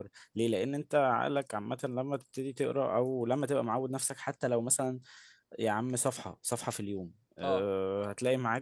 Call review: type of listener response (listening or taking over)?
listening